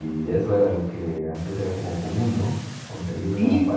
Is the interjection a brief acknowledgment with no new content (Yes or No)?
Yes